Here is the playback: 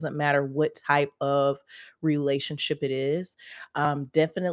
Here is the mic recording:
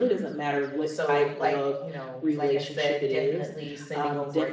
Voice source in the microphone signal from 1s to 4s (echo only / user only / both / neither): both